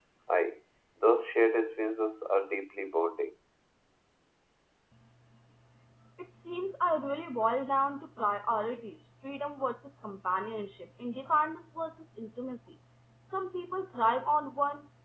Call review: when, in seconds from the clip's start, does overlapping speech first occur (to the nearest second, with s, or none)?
none